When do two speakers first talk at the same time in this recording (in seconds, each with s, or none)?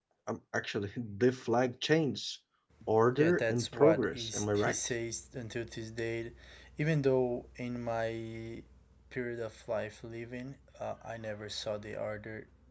3.2 s